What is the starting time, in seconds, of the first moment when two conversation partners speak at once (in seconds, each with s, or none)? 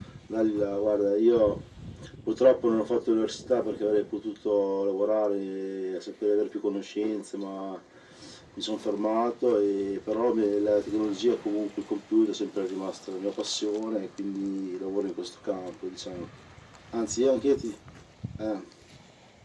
none